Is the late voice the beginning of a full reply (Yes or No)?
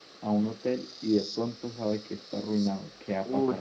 Yes